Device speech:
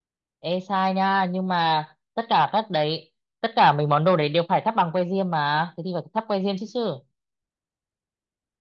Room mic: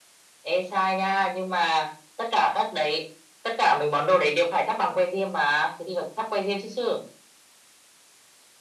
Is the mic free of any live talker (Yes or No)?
Yes